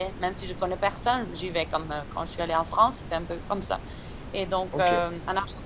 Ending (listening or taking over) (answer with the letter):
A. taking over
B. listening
B